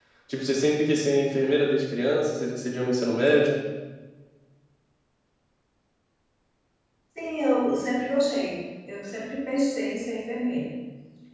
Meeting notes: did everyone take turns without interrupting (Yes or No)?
Yes